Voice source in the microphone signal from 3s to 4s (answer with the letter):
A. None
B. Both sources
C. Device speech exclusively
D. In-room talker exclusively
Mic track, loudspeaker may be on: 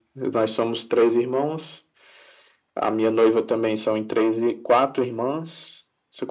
C